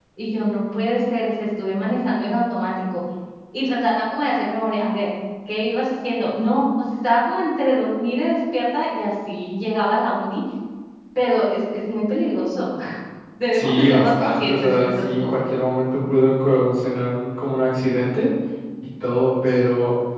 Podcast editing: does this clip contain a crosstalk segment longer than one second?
Yes, from 13.5 s

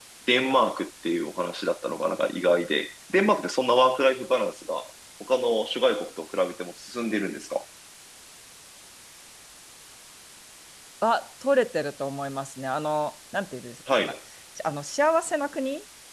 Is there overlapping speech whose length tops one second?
No

